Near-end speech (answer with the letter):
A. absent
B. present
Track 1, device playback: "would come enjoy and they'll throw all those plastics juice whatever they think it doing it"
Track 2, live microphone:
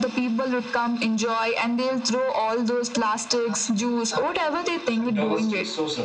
B